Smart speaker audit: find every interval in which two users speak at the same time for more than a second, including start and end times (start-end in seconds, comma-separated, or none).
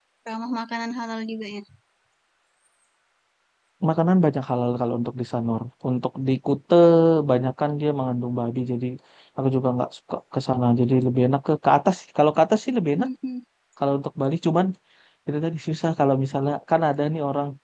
none